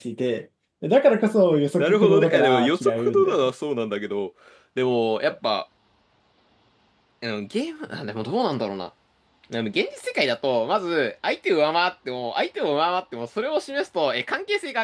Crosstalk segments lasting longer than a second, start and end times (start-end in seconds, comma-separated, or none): 1.8-3.5